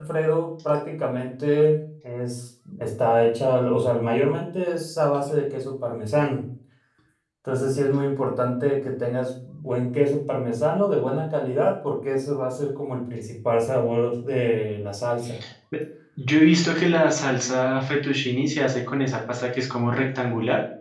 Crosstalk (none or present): none